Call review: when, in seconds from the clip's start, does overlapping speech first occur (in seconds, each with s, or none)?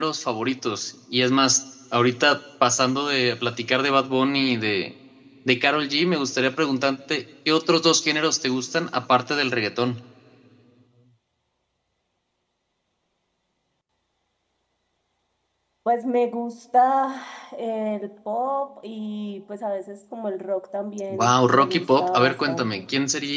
21.1 s